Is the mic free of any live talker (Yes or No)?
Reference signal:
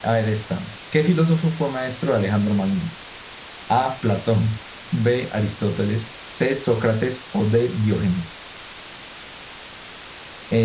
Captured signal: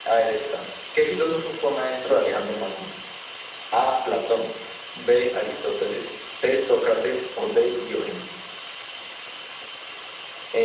Yes